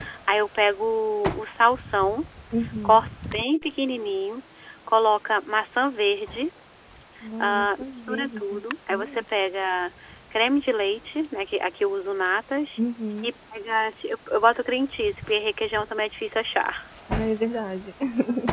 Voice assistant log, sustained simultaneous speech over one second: present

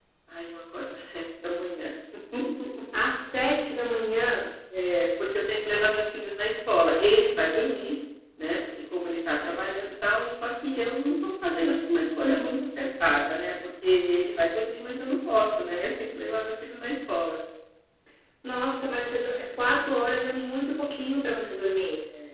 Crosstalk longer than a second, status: none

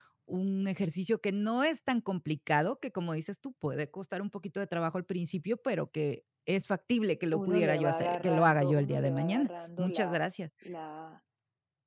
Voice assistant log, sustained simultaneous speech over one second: present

